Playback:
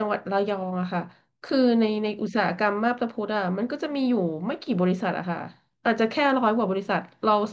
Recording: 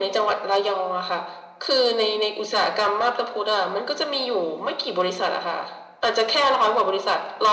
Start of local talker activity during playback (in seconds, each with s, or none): none